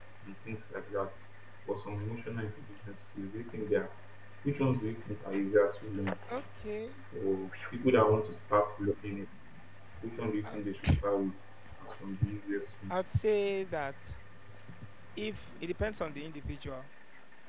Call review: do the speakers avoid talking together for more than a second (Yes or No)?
Yes